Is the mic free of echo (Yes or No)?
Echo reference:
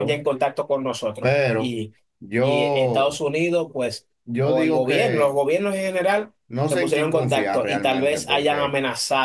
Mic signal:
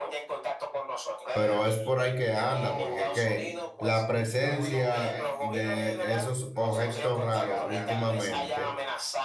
No